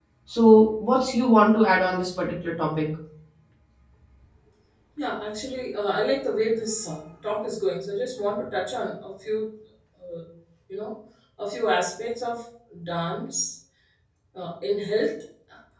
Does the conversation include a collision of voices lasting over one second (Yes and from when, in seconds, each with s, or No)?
No